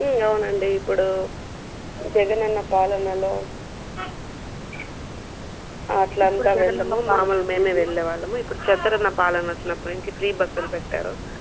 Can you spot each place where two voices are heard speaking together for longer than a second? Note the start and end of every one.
6.3-7.8

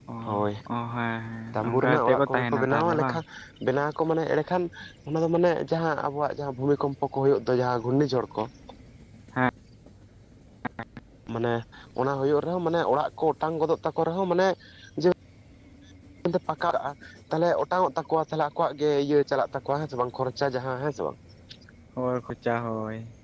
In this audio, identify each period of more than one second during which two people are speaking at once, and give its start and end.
1.5-3.2

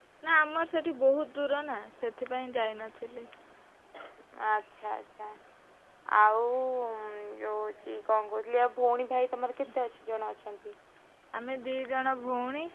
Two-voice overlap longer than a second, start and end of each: none

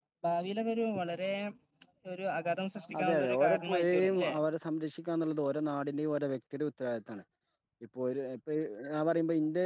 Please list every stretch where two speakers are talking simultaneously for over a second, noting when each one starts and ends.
3.0-4.3

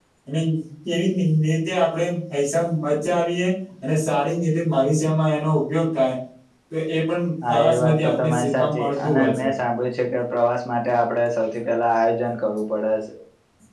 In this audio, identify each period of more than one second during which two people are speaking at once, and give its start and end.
7.4-9.5

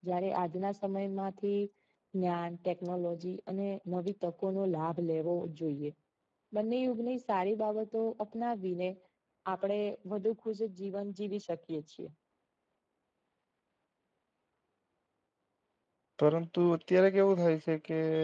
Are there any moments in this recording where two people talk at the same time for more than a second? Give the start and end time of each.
none

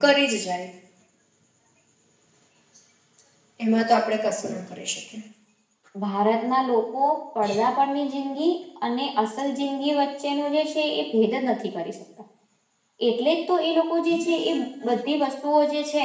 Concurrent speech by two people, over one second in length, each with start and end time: none

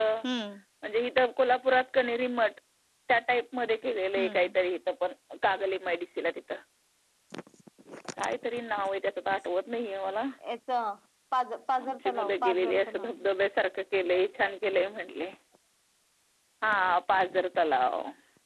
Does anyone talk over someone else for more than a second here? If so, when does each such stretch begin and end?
11.8-13.1

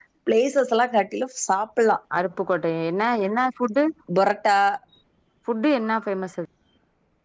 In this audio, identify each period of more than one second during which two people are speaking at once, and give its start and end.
none

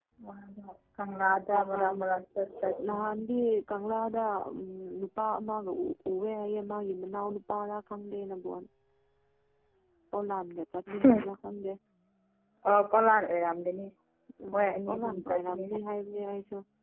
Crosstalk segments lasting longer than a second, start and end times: 14.5-15.8

